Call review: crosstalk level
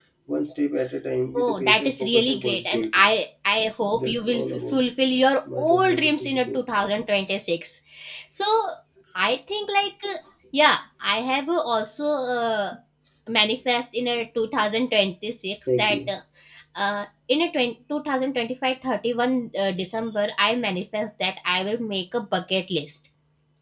present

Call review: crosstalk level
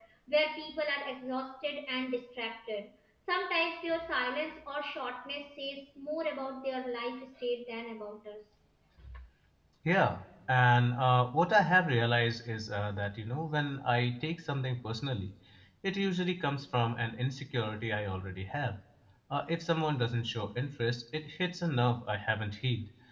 none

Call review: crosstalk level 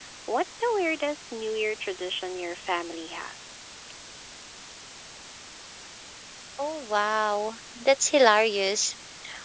none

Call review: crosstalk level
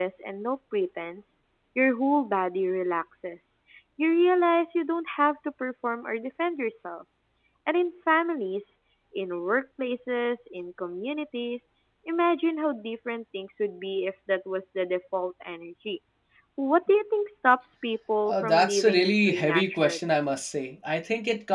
present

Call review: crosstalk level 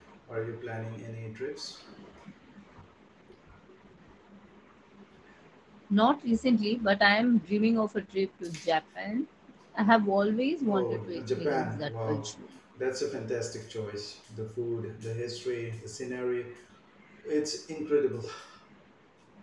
present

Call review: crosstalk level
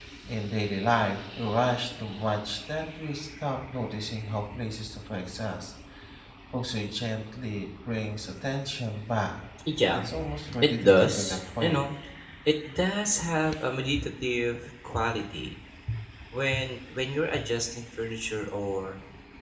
present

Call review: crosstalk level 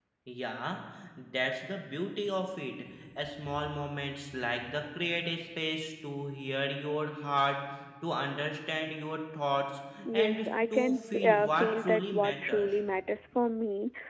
present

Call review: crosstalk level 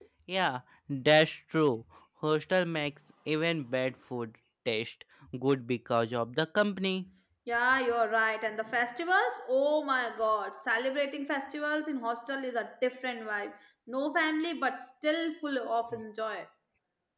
none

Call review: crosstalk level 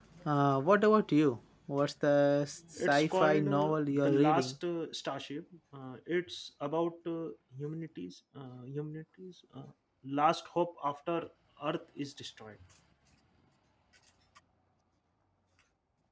present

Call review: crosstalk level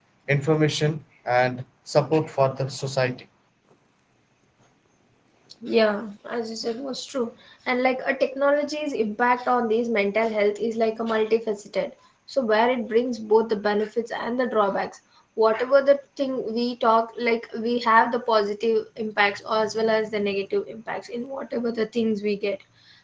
none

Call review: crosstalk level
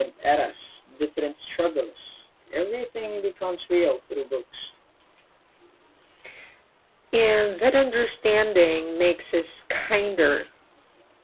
none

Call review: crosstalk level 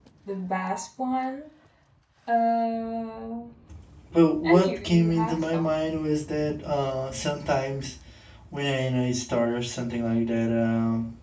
present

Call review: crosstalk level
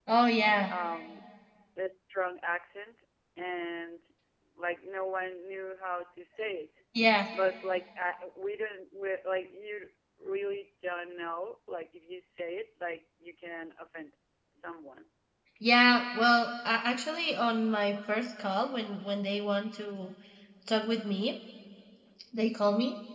none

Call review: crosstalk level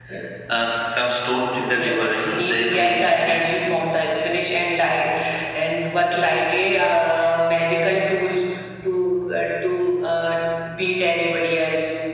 present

